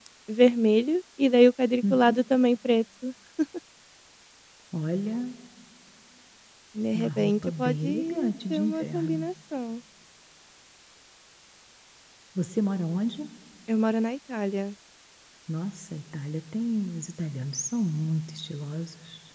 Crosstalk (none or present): present